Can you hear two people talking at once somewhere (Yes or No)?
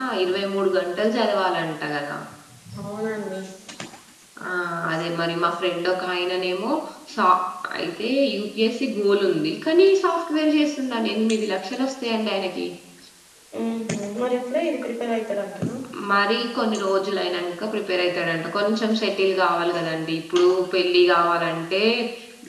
No